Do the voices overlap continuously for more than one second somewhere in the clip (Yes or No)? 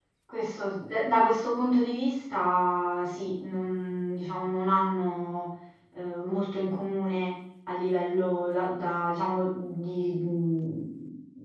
No